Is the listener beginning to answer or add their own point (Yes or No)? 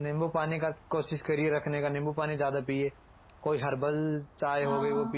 No